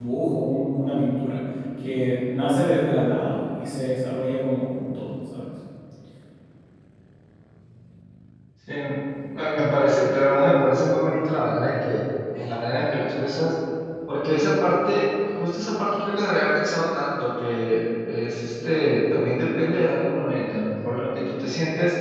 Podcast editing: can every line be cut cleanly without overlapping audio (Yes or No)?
Yes